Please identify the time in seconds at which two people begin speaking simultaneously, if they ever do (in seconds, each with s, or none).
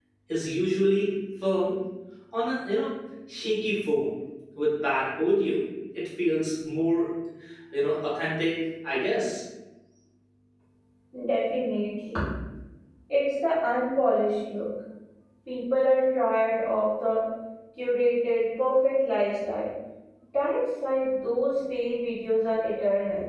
none